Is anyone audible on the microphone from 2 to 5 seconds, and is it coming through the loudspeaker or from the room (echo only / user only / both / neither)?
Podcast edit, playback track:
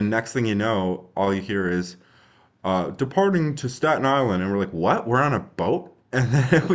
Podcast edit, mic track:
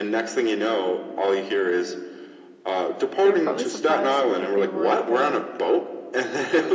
both